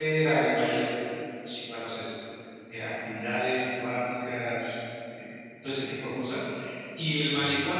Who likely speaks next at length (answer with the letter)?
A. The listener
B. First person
B